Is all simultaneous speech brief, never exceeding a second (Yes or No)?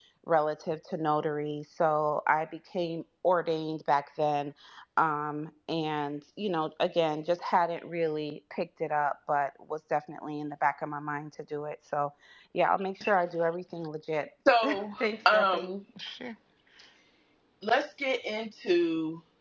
Yes